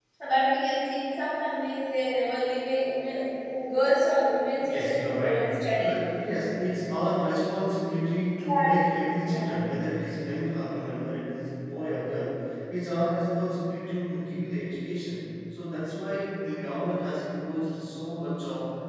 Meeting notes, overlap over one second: present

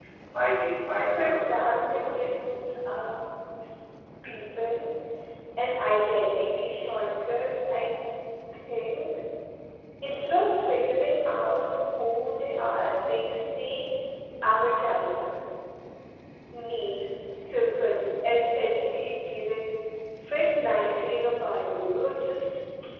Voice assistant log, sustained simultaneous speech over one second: present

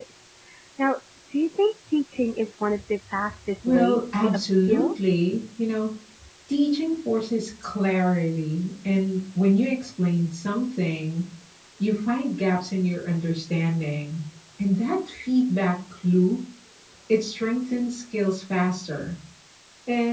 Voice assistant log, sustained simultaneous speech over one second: present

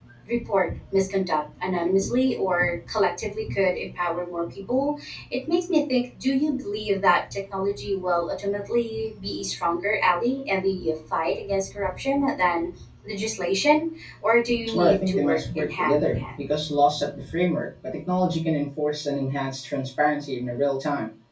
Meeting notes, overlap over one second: present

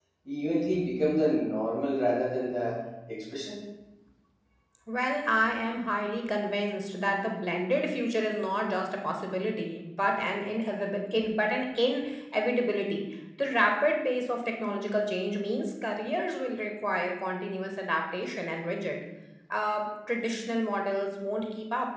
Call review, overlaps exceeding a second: none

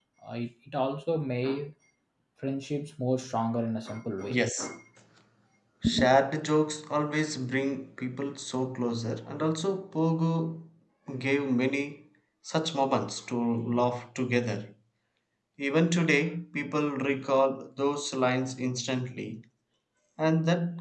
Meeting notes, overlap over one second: none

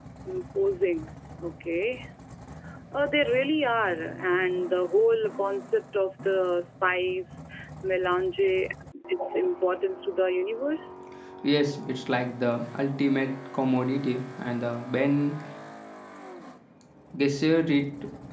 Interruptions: none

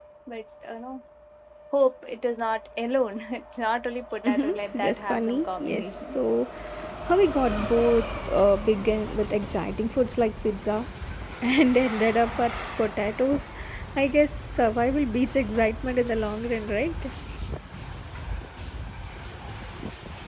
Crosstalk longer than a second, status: present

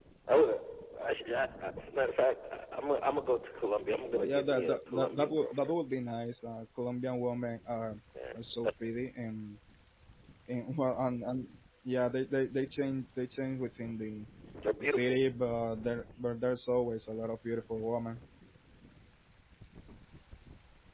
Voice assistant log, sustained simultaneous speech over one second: present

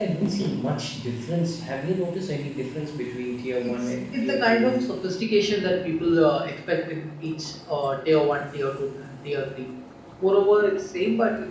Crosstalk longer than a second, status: present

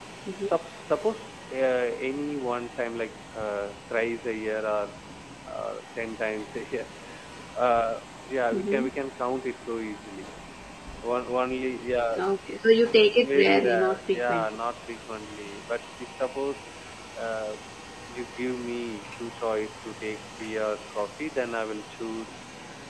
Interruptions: present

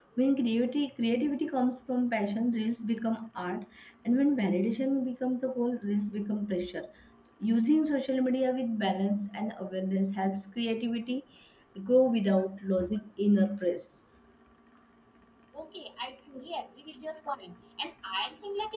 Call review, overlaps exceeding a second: none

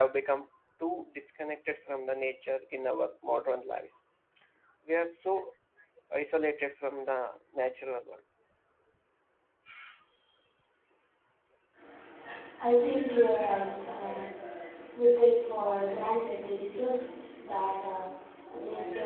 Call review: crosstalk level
none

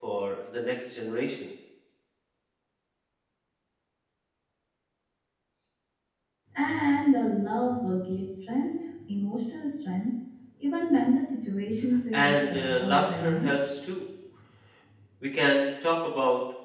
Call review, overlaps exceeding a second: present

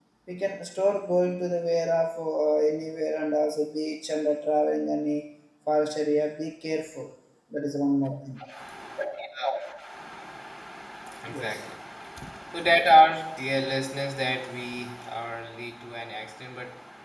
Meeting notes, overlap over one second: none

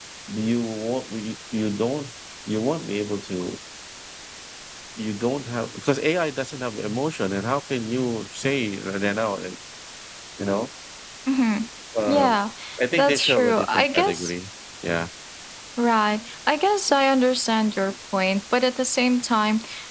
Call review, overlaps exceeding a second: present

